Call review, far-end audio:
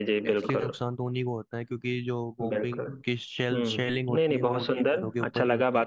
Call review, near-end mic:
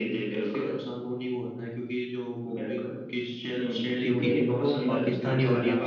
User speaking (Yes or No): Yes